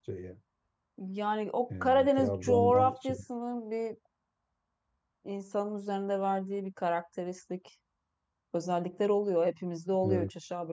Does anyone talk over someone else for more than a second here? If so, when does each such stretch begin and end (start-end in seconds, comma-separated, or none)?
1.8-3.2